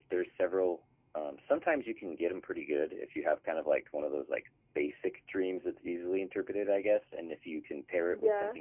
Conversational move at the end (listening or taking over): listening